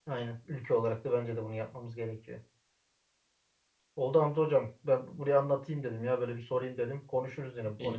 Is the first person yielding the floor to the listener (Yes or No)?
Yes